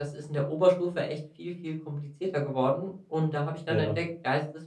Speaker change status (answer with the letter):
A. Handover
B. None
B